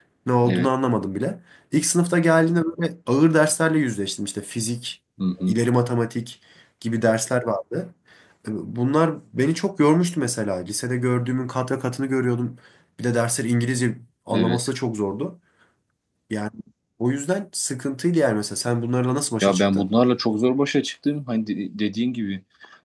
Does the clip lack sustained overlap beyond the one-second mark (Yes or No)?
Yes